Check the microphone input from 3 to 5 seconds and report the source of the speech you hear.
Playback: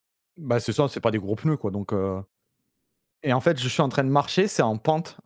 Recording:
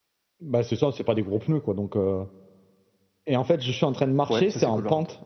both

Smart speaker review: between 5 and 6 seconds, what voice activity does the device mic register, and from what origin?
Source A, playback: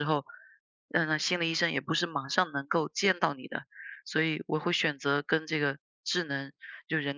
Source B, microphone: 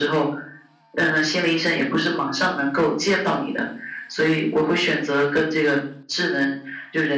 echo only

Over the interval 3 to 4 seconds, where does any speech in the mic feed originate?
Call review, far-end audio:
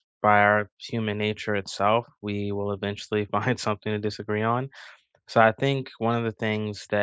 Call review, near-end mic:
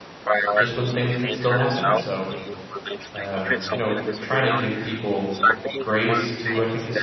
both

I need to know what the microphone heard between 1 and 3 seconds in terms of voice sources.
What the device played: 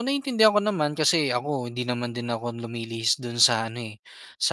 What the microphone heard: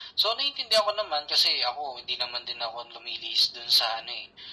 echo only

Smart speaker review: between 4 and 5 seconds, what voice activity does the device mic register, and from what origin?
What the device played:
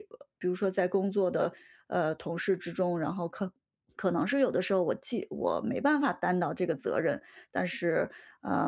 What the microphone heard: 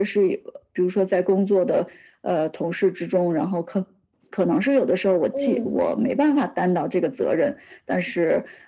echo only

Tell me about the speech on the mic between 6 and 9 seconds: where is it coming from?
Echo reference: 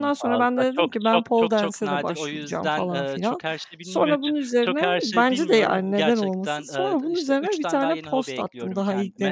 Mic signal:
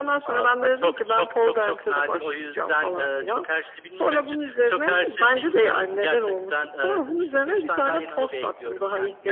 echo only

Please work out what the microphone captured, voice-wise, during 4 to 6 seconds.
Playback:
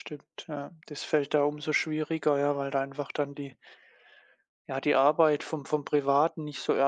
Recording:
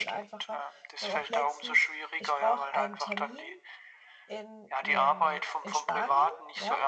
both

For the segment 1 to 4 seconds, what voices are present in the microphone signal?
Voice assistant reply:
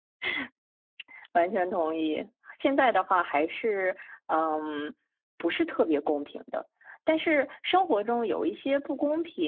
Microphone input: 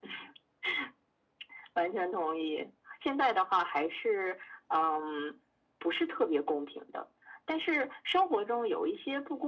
echo only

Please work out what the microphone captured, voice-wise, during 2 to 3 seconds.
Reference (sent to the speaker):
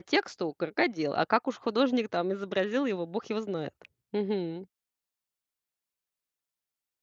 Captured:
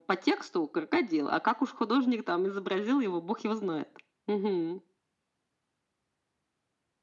echo only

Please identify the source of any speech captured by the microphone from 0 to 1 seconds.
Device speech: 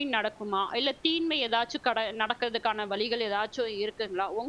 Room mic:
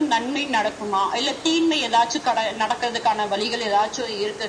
echo only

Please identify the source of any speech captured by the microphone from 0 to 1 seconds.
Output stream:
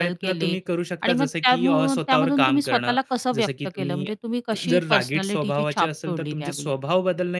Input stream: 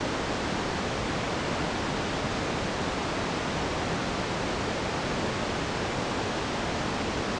neither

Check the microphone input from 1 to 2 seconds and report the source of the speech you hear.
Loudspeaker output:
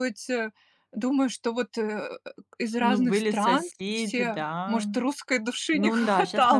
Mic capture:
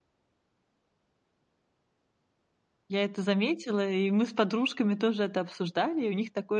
neither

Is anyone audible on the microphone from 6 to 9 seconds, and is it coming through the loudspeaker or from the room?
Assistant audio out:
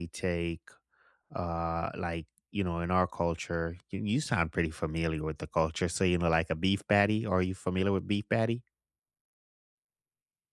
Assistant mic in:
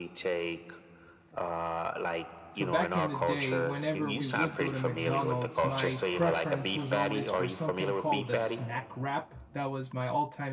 both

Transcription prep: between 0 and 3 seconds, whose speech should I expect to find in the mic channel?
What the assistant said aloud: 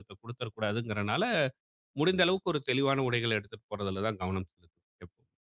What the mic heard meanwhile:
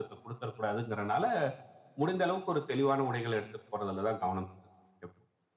echo only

